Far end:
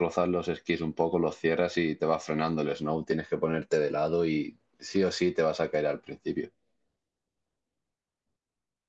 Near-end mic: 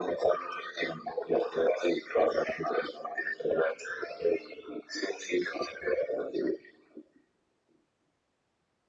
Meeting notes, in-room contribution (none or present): none